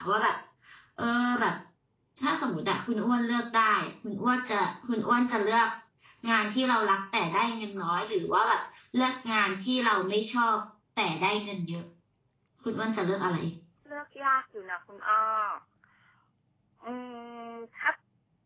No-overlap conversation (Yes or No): Yes